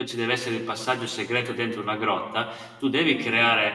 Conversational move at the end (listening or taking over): listening